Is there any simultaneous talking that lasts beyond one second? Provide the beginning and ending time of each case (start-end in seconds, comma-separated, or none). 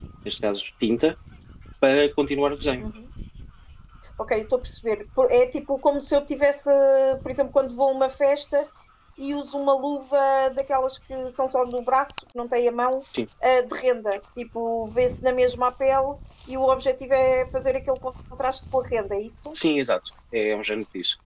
none